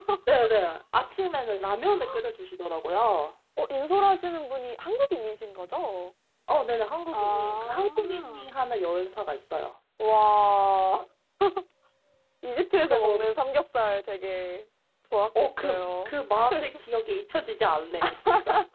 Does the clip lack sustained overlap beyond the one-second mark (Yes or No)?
No